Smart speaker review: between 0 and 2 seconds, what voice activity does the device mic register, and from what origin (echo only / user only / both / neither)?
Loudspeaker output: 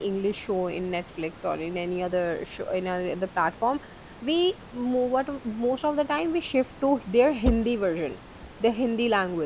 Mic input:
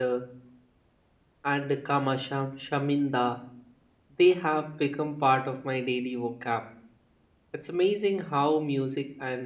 user only